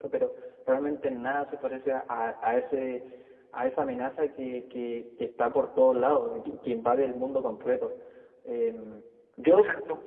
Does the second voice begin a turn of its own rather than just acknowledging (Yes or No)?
Yes